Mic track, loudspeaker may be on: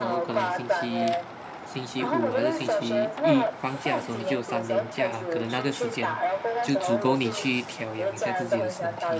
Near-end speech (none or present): present